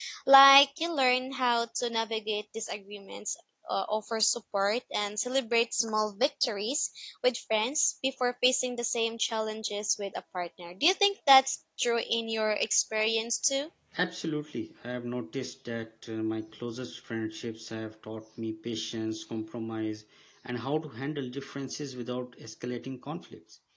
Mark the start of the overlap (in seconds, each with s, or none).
none